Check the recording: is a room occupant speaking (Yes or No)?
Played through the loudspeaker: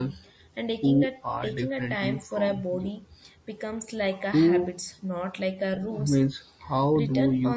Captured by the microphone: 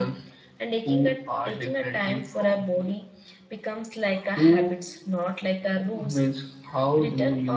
No